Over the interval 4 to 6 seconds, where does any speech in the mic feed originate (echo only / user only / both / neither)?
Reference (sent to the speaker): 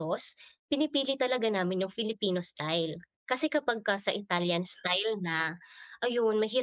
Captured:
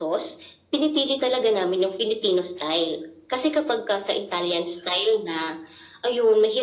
echo only